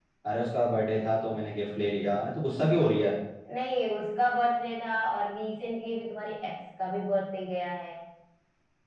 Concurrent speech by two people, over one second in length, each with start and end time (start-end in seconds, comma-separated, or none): none